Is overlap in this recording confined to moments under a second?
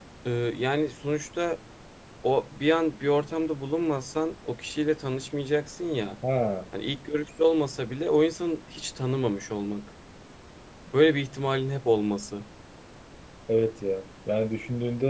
Yes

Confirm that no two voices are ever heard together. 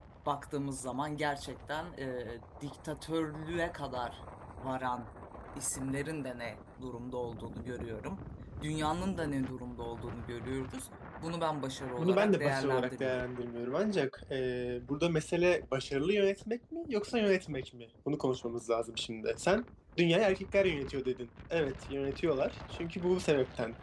No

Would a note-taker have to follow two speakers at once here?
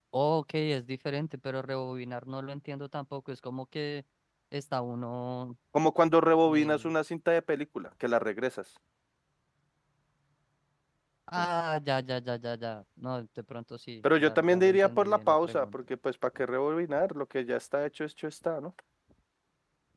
Yes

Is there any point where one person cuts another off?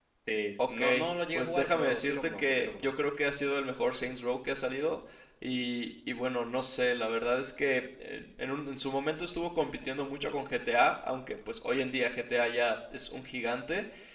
Yes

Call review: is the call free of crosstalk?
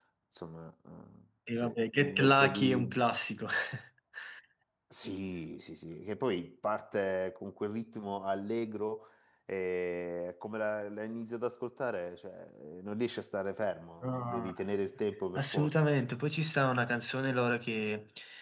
No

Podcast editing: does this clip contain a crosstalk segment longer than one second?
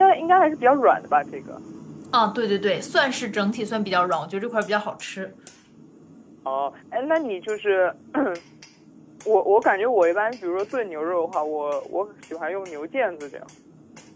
No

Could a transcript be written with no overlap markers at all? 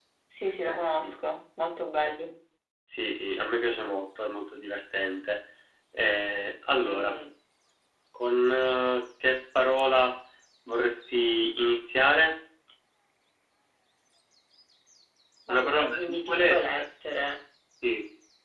No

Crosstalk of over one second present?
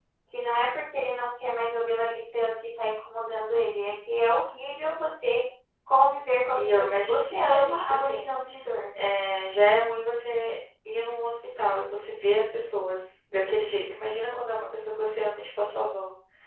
Yes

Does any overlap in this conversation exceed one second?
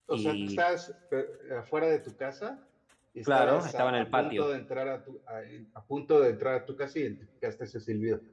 Yes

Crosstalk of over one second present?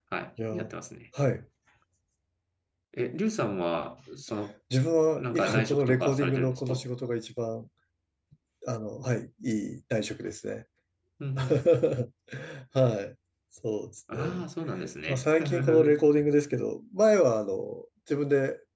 Yes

